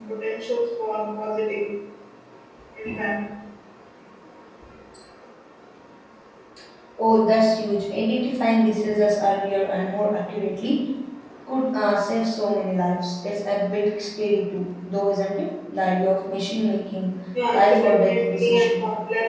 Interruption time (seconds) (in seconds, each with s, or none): 17.3 s